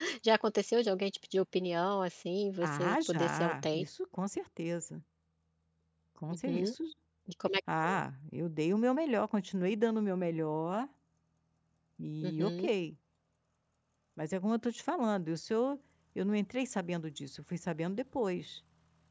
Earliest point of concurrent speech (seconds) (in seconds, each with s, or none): 2.6 s